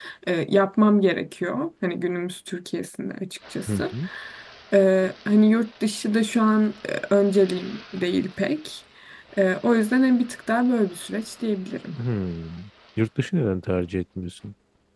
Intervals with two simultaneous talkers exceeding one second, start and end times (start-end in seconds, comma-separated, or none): none